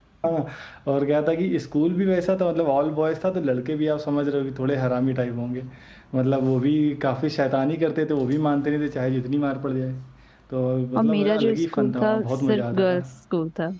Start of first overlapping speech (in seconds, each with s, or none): 10.9 s